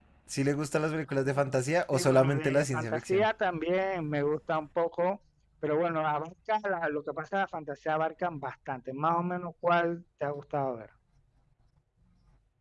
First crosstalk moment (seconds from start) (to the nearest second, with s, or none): 2 s